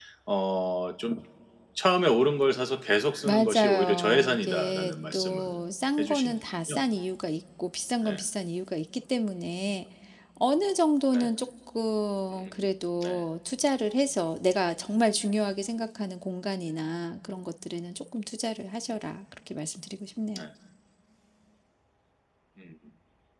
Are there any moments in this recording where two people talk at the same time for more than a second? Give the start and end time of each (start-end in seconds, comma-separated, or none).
3.2-5.6